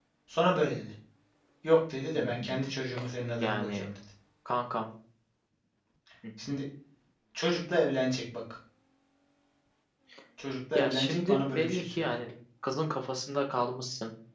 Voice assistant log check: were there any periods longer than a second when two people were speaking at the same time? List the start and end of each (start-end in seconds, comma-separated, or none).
10.8-12.1